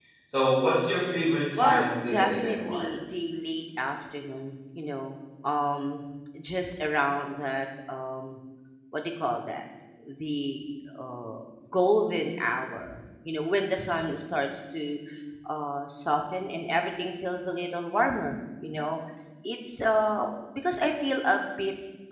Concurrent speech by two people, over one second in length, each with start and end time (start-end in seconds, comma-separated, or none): 1.6-2.9